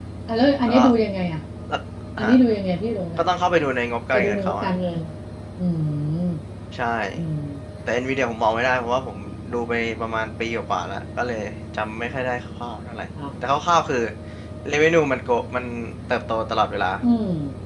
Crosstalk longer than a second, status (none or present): none